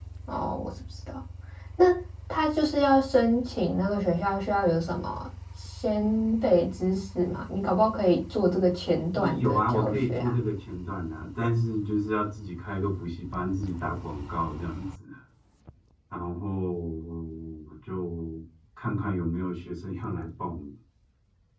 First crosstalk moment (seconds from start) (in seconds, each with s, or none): 9.1 s